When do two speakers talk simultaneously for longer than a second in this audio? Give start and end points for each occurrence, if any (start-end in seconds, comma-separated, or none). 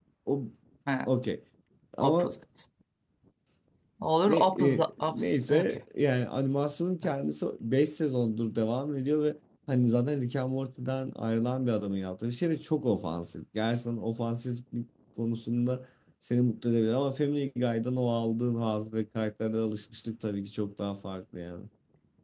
4.2-5.8